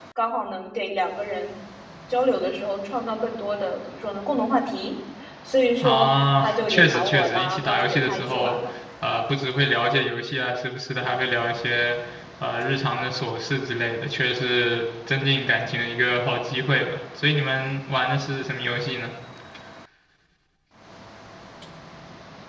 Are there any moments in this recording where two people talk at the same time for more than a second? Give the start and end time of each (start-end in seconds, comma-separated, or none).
5.8-8.6